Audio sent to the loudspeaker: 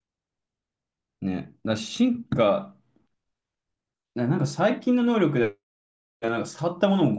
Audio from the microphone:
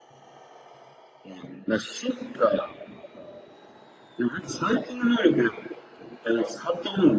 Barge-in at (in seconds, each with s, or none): none